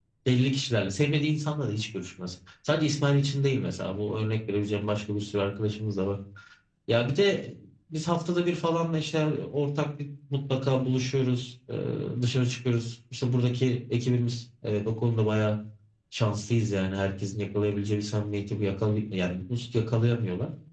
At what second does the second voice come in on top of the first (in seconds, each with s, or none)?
none